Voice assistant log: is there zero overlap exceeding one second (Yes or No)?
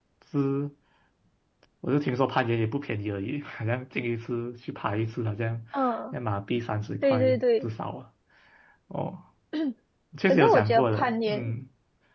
No